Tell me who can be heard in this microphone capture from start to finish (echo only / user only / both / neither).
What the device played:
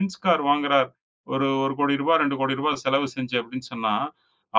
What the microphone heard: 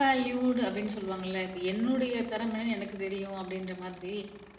user only